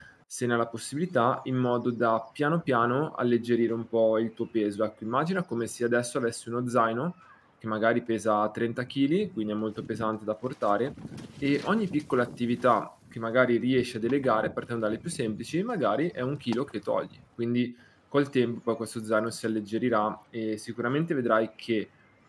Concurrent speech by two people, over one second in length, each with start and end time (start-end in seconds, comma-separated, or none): none